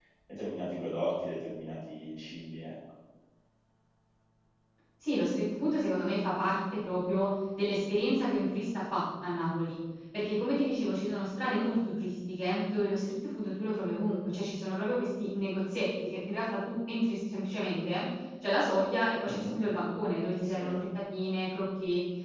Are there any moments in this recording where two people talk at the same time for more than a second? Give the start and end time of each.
none

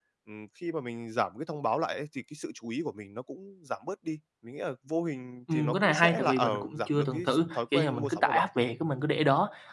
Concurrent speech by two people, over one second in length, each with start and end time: 5.5-8.4

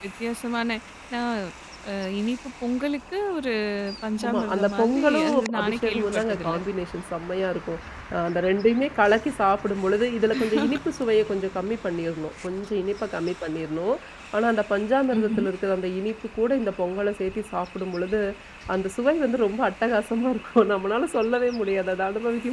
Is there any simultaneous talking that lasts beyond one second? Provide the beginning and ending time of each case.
4.2-6.5

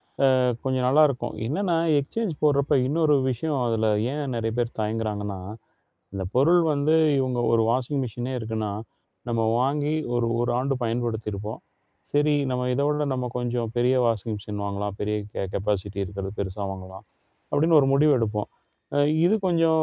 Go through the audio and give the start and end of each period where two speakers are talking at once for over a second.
none

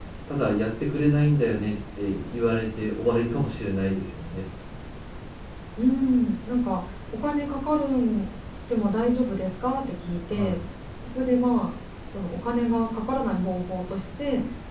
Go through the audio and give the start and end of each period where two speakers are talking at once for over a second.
none

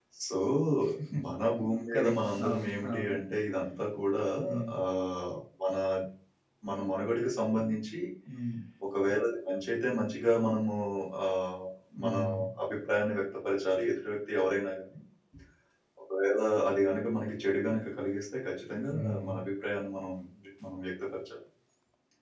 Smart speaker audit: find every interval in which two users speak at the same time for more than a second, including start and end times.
1.9-3.1

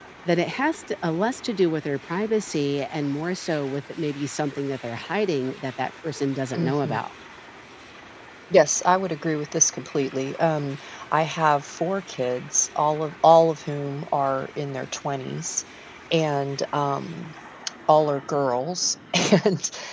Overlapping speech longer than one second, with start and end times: none

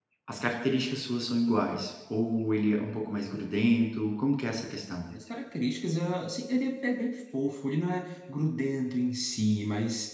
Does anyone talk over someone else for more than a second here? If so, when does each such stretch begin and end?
none

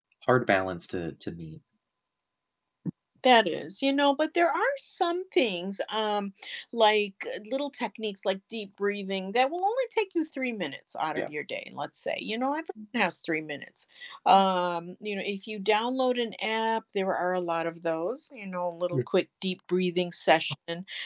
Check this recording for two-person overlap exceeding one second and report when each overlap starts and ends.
none

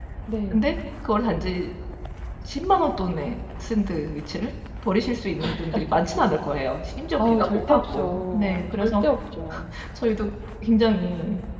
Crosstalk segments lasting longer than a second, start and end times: 7.1-9.0

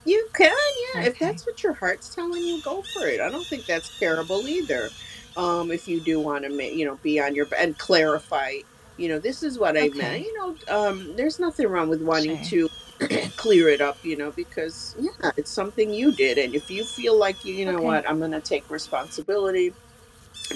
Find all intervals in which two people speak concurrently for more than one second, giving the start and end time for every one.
none

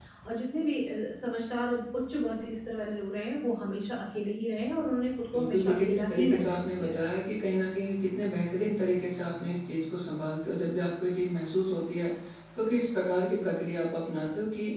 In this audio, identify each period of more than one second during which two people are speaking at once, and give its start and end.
5.3-7.1

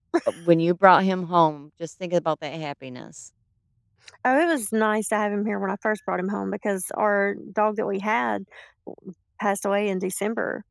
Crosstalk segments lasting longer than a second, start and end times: none

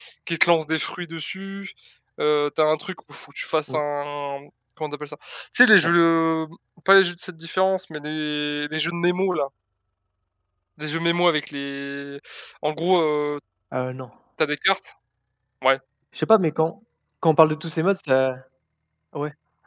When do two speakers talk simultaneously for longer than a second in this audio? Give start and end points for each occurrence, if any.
none

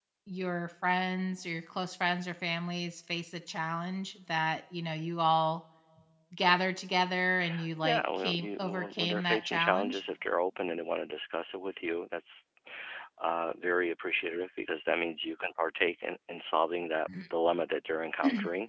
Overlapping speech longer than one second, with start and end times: 7.8-10.0

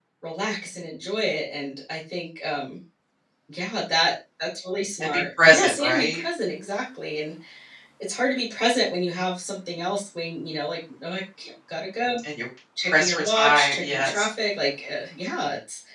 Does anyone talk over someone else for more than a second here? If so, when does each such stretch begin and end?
5.0-6.2, 12.8-14.3

